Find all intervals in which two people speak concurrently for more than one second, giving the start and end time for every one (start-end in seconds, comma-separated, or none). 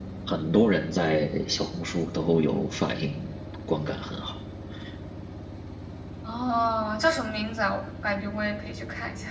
none